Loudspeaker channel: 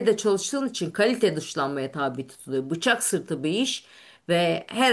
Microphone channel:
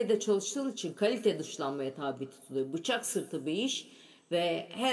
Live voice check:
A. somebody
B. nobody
B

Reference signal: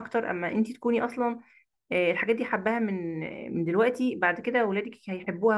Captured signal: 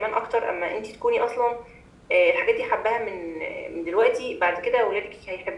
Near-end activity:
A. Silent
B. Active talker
A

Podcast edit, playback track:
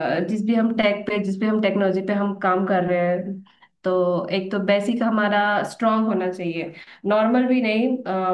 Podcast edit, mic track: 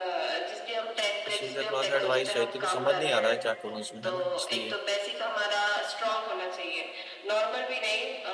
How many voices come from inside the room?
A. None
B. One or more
B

